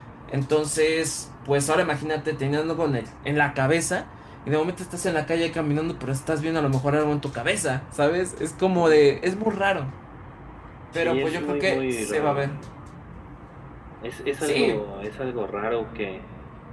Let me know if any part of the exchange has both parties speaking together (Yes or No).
Yes